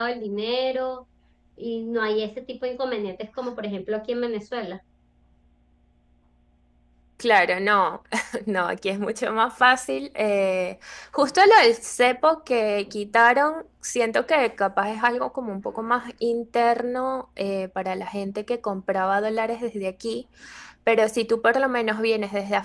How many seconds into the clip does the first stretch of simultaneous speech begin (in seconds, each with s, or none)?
none